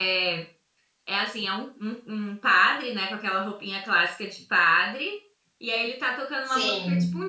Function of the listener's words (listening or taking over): listening